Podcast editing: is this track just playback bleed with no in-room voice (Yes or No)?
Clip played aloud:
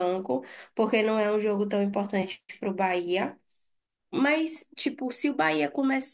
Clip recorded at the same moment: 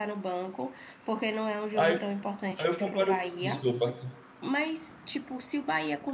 No